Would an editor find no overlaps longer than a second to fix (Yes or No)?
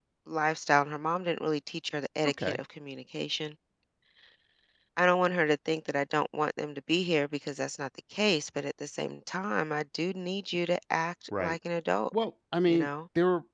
Yes